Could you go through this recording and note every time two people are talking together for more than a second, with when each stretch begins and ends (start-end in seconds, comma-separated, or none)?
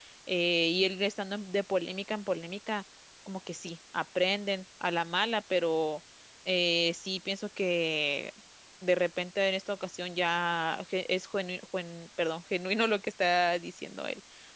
none